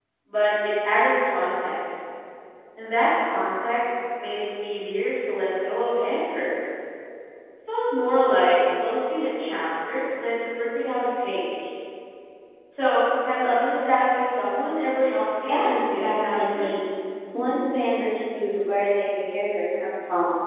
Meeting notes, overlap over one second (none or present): present